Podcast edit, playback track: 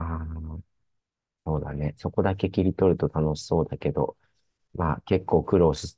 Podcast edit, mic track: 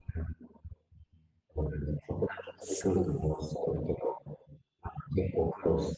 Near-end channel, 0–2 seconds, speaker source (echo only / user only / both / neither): echo only